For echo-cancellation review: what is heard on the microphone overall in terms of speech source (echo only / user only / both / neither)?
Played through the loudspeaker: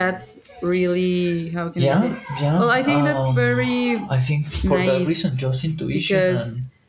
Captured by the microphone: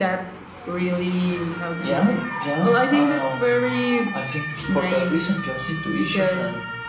echo only